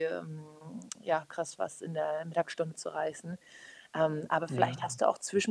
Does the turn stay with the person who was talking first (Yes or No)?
Yes